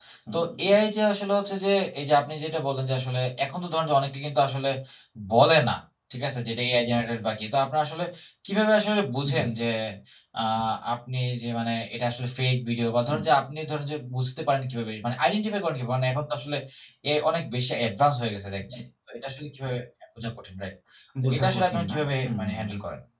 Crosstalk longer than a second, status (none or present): present